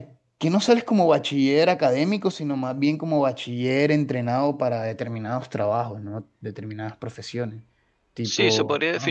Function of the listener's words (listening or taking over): taking over